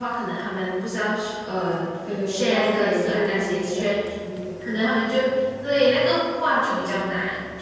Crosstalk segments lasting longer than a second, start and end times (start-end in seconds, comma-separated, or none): 2.3-3.9